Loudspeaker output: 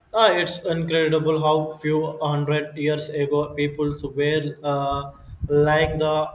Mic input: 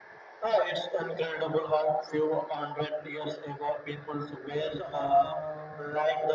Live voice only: And that's a hard uh,

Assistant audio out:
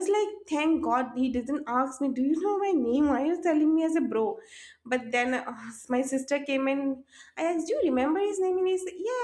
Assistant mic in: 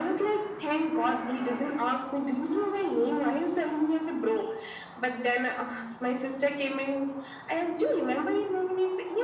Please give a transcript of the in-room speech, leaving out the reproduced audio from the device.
none

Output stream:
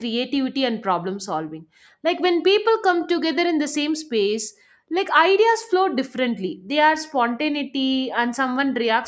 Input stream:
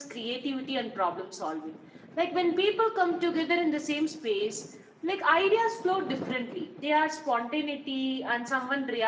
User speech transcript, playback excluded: none

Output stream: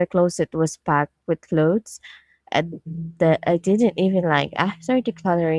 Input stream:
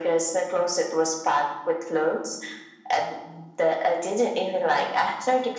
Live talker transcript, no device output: none

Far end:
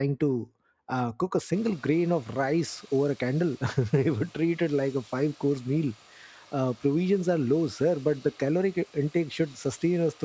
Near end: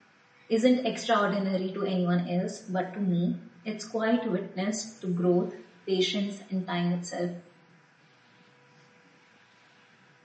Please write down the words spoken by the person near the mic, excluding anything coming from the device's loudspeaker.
isn't extraordinary to anyone else, but to me, it's quite witness to growth, patience, and time itself.

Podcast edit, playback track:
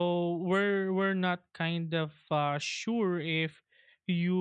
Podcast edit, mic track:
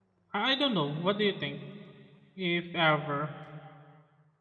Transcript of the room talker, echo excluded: I I don't know. What do you think? If ever,

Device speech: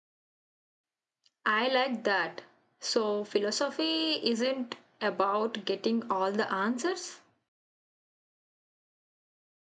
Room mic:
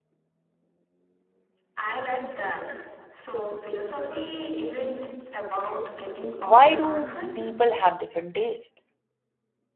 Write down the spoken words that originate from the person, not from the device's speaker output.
why do people have different taste

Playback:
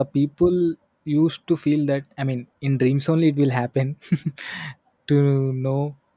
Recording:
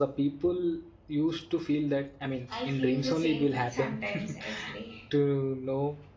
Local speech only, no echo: i feel the same sometimes actually

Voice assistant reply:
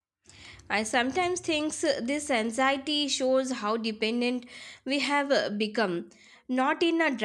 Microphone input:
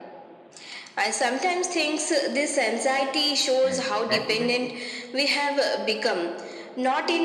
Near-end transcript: and that even if

